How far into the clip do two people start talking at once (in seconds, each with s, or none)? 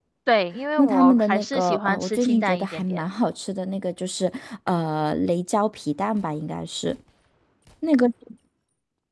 0.8 s